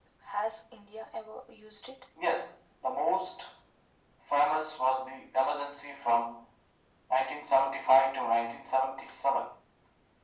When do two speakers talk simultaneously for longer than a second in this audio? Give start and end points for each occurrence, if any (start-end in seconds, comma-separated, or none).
none